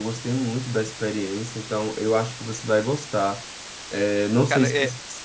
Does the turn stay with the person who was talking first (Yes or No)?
Yes